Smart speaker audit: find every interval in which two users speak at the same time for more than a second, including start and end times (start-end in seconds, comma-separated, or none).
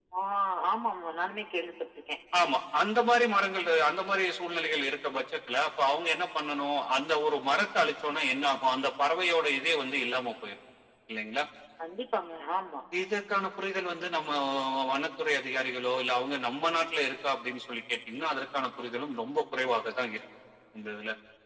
none